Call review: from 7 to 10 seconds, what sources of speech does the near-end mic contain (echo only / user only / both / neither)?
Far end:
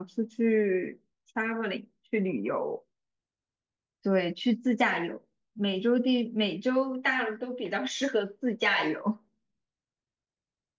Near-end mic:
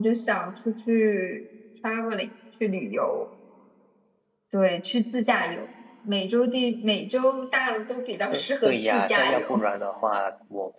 both